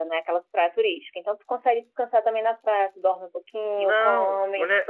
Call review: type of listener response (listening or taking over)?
taking over